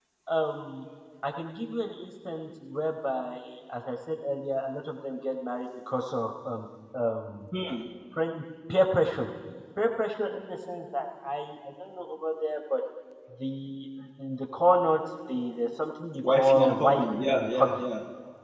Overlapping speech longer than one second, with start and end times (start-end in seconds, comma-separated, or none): 16.2-17.8